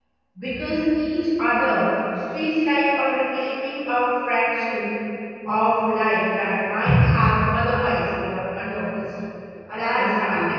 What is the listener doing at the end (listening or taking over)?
taking over